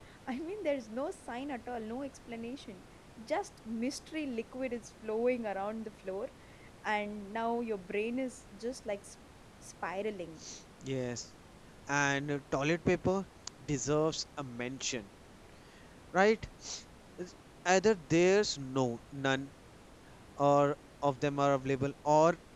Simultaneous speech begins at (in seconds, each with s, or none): none